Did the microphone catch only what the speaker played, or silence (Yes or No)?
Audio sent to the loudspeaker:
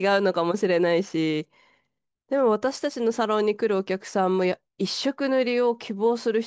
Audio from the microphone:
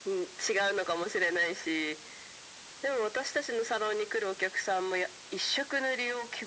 Yes